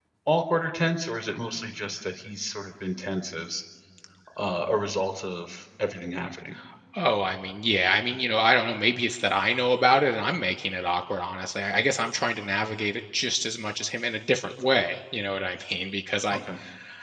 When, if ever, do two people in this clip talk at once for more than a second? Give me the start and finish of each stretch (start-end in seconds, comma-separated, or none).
none